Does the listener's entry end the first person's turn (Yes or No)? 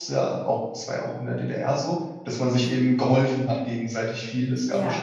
No